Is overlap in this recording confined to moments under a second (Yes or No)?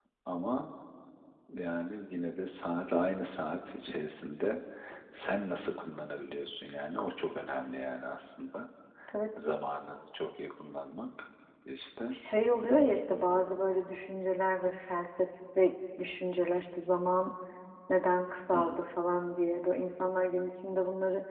Yes